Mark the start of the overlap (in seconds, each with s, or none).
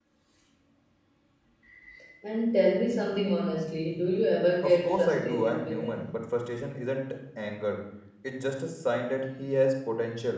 4.6 s